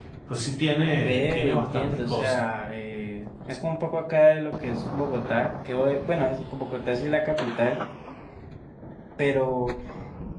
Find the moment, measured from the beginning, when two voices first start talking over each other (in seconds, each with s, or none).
1.0 s